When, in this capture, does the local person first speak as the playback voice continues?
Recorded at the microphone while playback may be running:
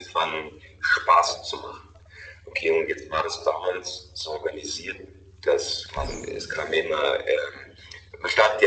none

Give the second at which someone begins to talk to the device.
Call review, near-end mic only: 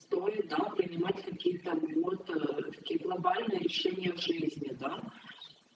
none

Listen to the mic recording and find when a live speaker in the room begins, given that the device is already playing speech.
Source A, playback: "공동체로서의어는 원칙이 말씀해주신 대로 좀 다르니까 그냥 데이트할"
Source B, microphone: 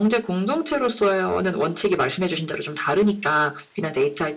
none

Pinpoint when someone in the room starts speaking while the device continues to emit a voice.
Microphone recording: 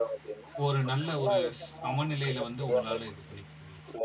0.6 s

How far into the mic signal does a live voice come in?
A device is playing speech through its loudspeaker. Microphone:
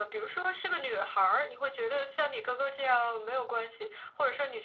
none

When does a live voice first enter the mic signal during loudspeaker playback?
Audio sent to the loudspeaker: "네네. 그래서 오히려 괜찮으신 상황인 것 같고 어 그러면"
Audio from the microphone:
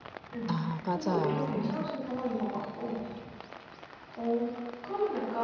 0.5 s

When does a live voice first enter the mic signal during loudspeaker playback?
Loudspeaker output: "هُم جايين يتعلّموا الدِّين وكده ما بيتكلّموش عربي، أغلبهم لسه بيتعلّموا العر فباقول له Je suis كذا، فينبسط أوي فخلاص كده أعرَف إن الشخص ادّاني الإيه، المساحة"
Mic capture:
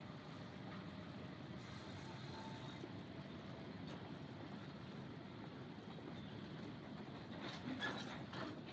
none

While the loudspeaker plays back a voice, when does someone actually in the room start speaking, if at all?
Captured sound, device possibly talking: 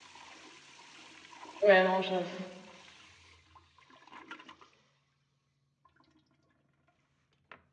1.6 s

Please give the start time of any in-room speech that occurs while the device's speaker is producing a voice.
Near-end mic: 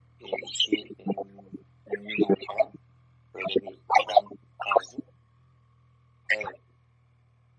none

